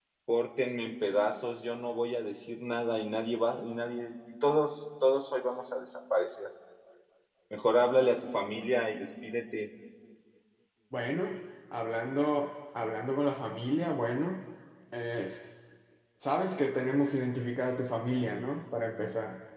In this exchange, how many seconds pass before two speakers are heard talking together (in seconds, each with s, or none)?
none